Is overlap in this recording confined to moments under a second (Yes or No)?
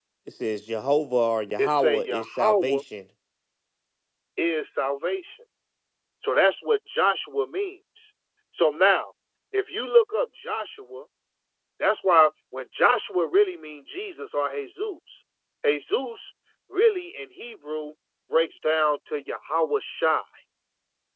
No